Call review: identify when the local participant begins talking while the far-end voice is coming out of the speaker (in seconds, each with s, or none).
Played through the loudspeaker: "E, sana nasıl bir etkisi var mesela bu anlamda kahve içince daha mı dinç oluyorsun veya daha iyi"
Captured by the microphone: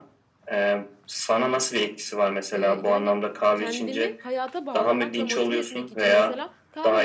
2.5 s